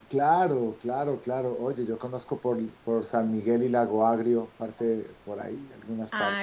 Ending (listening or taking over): taking over